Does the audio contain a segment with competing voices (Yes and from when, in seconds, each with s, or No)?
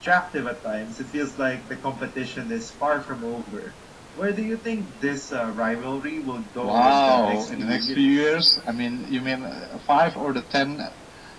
Yes, from 6.6 s